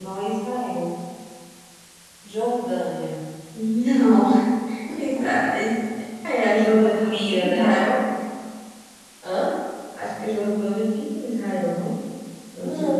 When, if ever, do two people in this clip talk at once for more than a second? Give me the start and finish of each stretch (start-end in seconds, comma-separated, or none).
6.6-7.8